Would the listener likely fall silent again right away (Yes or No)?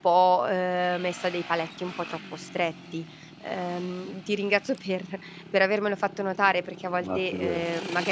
Yes